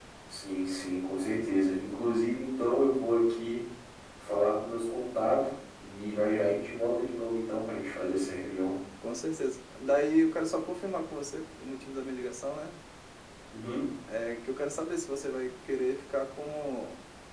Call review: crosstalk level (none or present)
none